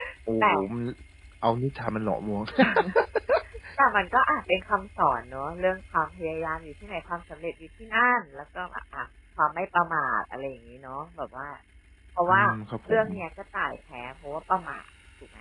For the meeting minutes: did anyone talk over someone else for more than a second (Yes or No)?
No